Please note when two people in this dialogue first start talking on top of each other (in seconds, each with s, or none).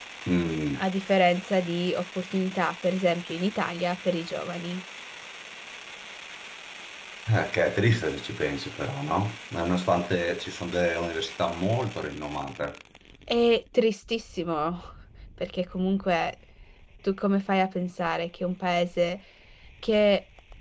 none